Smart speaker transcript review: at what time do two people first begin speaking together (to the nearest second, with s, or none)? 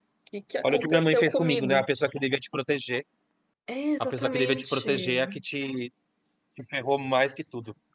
1 s